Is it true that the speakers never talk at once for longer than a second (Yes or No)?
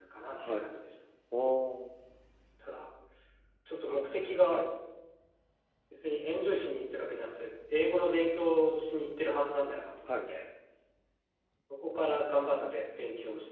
Yes